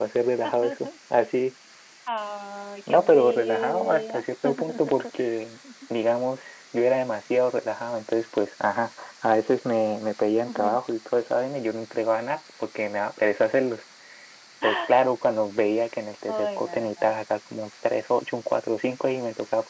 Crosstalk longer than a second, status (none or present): present